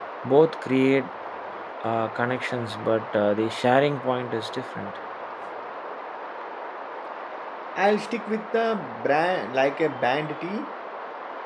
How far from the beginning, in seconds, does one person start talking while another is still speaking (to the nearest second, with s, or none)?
none